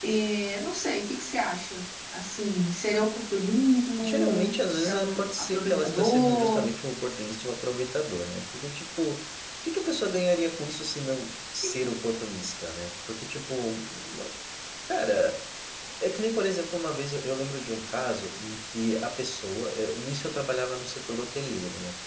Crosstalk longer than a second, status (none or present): present